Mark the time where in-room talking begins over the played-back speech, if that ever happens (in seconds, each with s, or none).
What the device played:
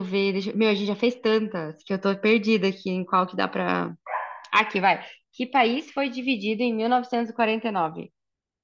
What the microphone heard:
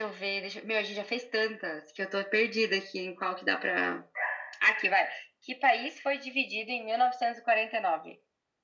none